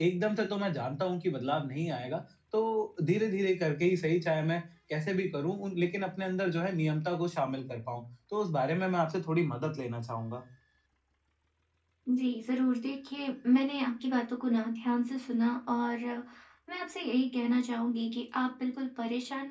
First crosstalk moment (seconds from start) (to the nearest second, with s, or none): none